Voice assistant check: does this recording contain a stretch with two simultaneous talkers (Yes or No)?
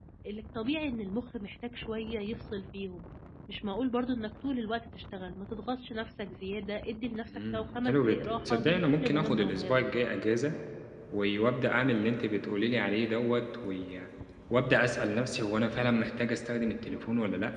Yes